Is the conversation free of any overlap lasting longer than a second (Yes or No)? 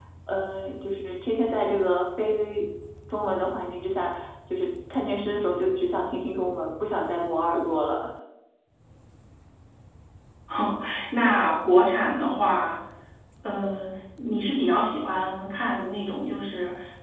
Yes